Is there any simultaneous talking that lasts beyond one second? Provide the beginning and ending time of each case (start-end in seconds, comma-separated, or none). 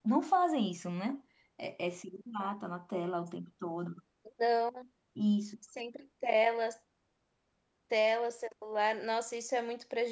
none